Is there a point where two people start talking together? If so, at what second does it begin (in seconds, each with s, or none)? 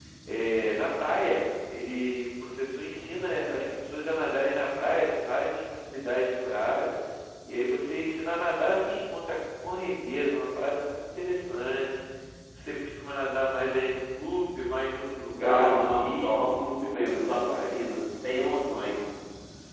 15.3 s